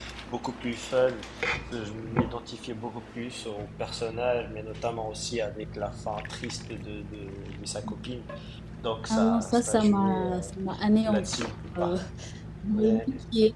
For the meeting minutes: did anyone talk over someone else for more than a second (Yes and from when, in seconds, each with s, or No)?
Yes, from 9.1 s